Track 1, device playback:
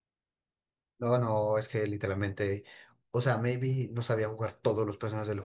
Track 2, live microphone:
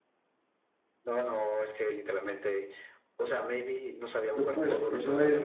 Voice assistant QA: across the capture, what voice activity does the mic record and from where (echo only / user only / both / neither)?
both